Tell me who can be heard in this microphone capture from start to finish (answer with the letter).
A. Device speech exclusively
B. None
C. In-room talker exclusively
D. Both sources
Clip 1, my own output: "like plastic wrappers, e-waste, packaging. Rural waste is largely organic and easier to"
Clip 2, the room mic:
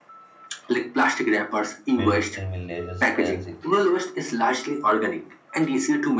D